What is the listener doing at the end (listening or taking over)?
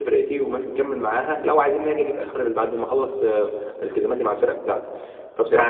taking over